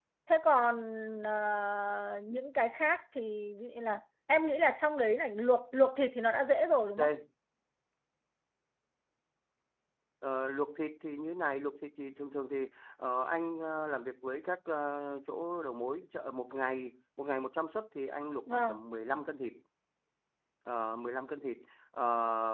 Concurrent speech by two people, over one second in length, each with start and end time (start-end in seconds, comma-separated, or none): none